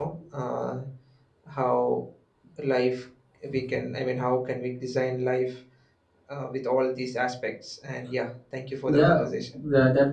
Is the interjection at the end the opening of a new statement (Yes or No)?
Yes